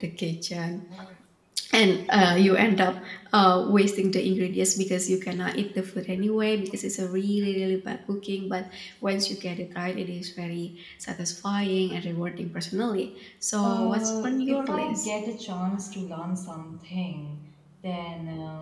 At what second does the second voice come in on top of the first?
13.6 s

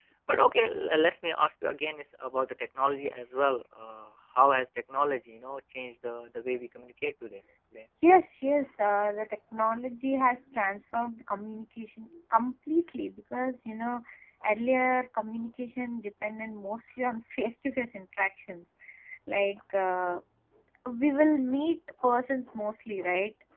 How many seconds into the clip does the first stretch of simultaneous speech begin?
none

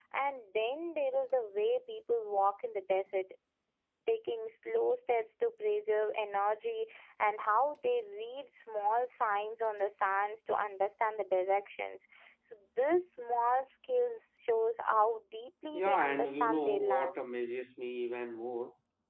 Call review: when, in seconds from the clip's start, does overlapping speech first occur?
15.7 s

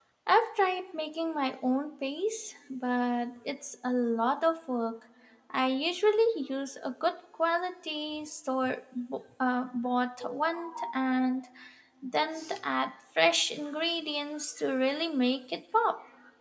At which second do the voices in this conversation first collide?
none

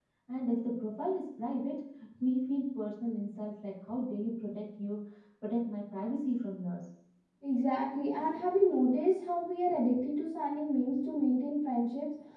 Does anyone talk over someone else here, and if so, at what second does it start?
none

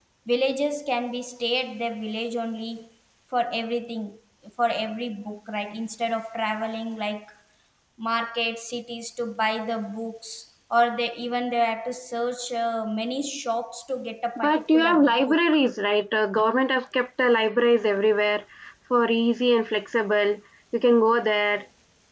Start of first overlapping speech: 14.4 s

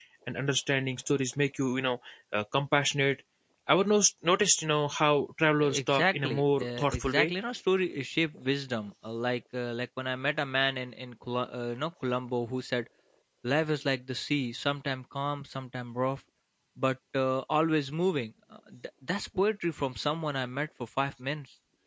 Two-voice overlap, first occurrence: 5.6 s

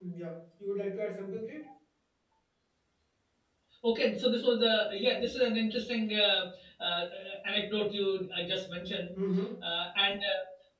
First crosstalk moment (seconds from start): none

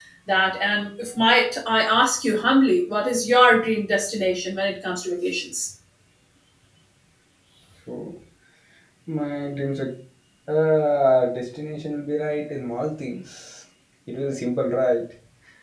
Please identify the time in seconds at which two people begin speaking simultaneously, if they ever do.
none

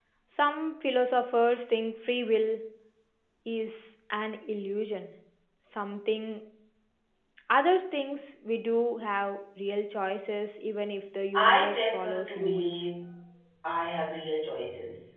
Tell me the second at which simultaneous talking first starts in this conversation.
11.3 s

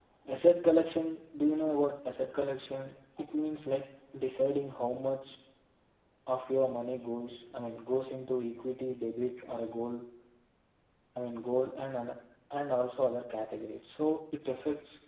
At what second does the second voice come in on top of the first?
none

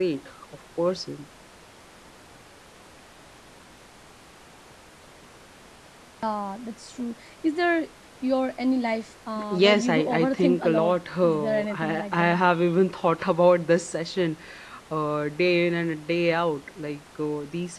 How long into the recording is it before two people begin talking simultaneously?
9.4 s

